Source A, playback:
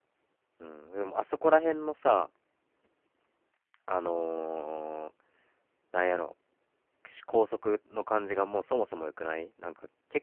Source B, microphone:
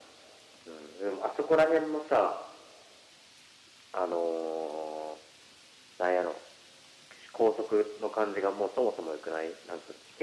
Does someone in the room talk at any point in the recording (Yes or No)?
No